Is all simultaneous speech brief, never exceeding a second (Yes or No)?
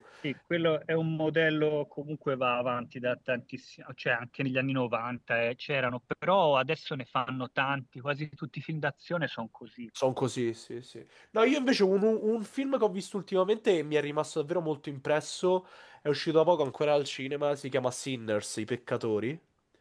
Yes